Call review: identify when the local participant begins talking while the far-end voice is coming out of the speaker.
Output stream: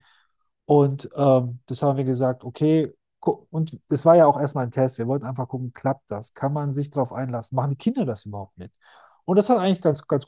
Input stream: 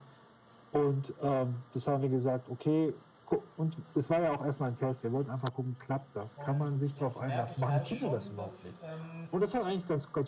6.3 s

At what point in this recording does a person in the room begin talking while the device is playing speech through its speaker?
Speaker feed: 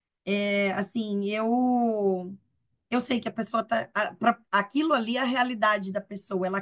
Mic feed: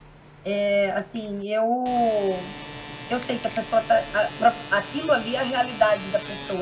none

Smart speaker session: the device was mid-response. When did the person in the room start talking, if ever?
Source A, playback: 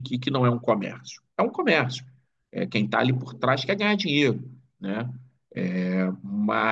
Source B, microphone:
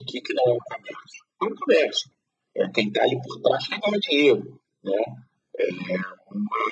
none

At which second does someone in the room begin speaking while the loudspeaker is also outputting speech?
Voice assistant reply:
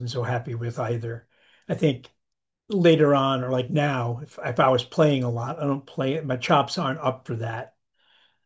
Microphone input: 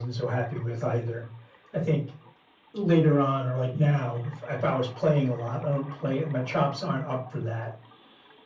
none

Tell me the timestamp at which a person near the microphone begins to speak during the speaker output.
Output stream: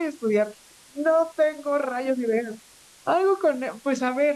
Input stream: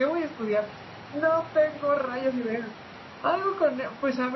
none

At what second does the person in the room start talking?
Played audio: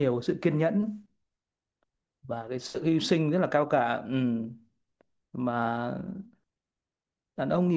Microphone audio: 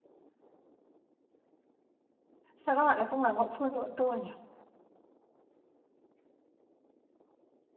2.6 s

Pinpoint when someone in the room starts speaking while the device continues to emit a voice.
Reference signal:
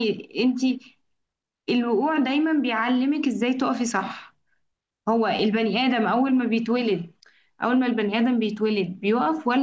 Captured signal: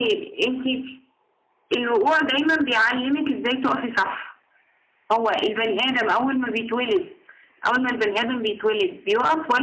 5.7 s

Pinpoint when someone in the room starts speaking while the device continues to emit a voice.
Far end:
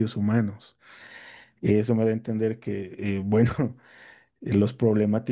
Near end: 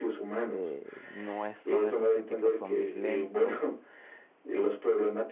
0.4 s

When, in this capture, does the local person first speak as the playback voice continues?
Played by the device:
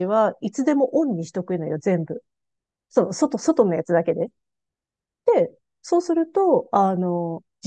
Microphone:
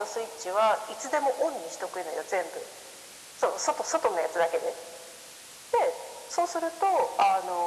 none

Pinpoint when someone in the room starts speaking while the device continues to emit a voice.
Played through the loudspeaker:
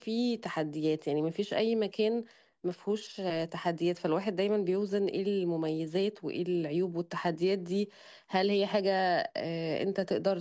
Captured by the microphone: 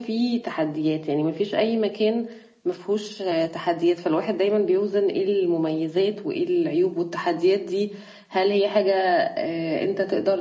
none

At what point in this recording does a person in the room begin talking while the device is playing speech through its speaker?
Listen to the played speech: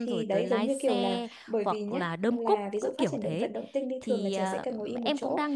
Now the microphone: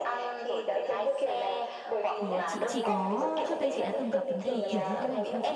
2.1 s

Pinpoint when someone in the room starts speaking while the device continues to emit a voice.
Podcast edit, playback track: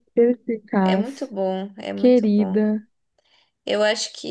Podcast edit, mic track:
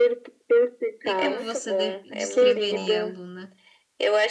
1.0 s

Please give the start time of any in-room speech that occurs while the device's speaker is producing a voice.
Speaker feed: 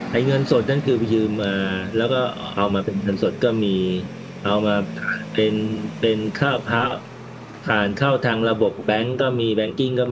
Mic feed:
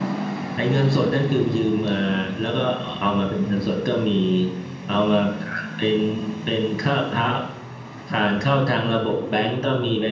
none

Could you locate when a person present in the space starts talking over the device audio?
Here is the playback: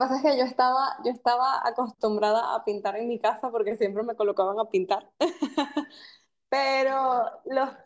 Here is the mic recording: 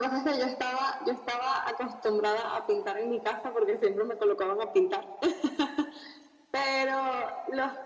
none

